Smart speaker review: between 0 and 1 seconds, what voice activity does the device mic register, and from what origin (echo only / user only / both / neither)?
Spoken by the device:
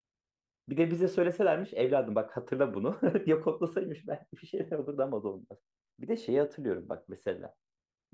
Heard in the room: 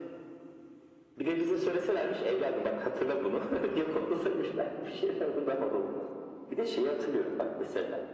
neither